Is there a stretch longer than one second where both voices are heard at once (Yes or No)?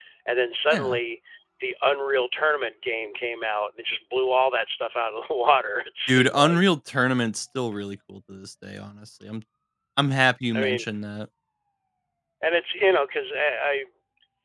No